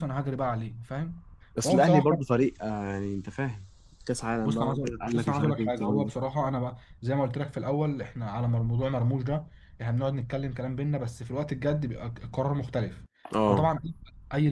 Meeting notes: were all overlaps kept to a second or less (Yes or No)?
No